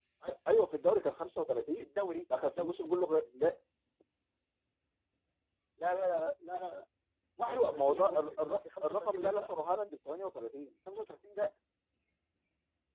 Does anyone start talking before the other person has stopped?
Yes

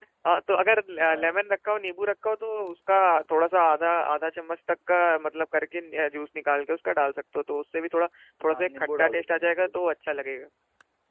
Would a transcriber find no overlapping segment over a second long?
No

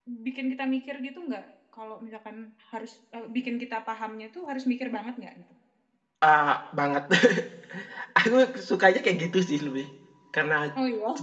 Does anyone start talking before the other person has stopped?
No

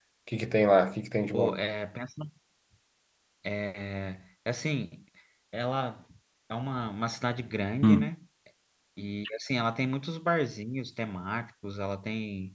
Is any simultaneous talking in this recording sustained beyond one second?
No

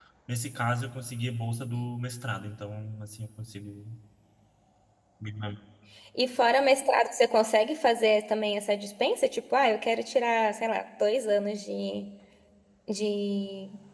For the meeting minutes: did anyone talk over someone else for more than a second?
No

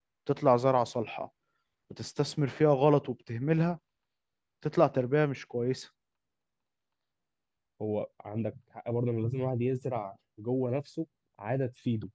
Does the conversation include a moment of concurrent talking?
No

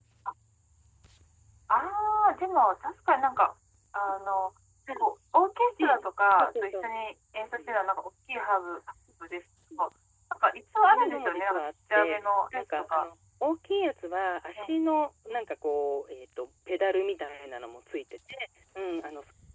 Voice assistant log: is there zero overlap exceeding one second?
No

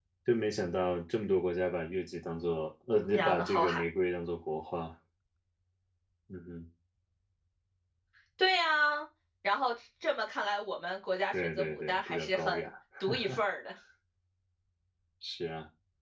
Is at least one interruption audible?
Yes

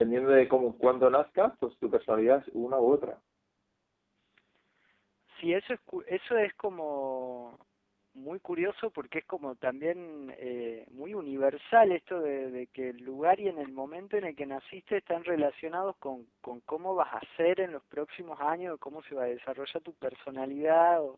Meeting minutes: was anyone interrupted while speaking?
No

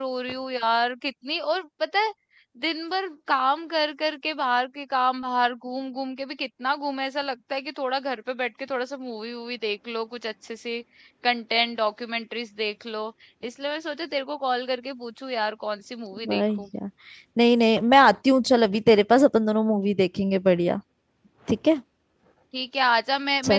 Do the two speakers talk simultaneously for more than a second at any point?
No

